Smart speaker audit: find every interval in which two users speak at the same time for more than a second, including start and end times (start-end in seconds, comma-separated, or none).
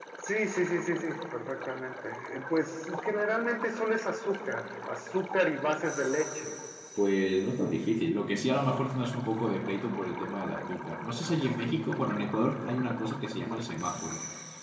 none